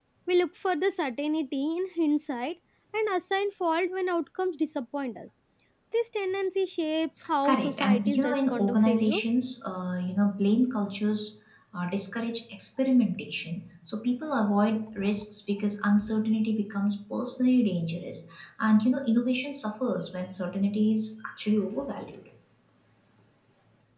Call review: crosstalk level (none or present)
present